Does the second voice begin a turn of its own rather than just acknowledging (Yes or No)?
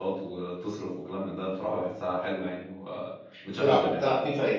Yes